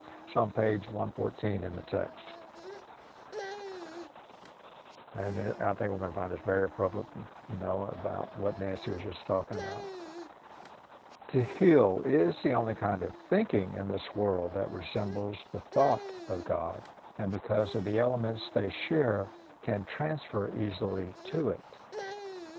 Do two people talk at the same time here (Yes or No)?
No